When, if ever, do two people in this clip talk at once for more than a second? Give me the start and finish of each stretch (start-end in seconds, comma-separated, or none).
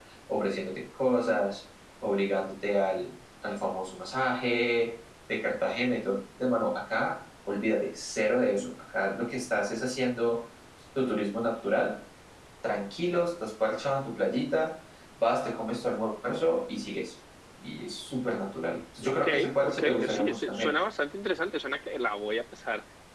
19.1-20.7